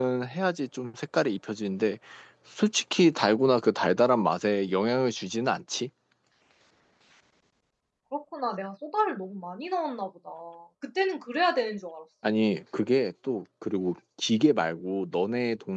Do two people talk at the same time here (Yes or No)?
No